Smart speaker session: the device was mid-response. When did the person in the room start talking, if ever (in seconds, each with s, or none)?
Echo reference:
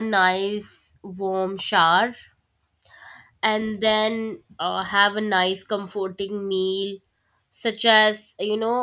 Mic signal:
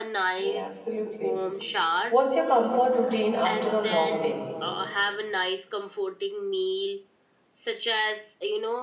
0.4 s